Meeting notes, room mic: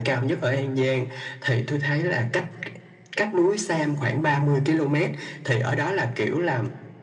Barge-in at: none

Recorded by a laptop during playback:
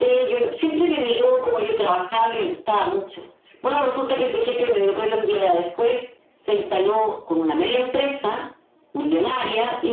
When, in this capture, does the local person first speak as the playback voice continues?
none

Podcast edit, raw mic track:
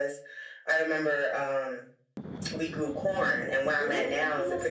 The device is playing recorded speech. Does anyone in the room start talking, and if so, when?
3.7 s

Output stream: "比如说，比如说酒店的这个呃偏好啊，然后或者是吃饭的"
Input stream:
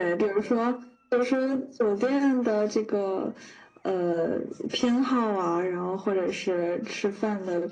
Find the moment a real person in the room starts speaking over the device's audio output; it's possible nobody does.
none

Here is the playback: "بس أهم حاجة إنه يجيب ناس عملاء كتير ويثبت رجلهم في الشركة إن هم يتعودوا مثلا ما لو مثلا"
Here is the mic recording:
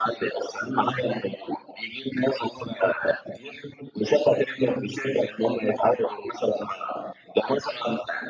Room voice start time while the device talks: none

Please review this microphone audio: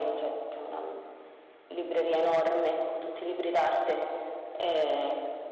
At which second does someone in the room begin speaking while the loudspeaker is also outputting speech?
none

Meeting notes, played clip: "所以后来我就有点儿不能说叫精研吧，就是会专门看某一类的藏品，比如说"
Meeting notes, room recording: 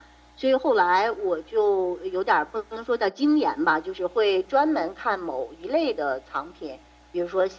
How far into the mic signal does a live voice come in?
none

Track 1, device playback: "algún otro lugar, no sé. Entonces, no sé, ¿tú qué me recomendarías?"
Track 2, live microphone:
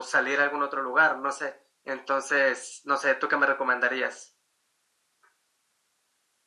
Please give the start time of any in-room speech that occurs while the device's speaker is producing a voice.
none

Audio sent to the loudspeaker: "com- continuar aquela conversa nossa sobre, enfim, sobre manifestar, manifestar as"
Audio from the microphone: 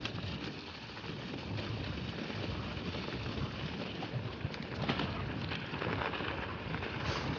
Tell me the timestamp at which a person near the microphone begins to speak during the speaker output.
none

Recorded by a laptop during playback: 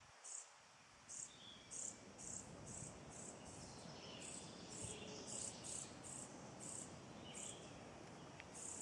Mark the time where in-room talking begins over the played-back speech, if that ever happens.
none

